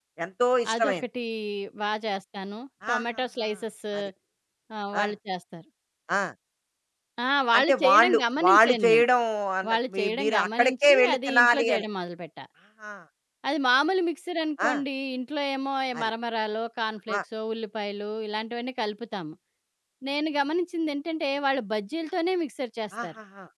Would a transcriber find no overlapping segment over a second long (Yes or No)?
No